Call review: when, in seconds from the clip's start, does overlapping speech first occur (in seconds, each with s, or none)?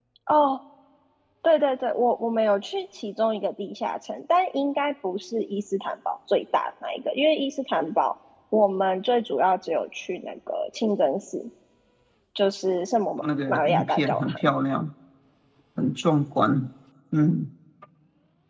13.2 s